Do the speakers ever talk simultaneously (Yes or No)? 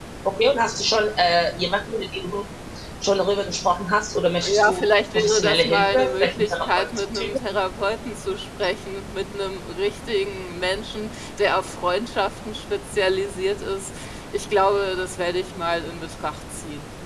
Yes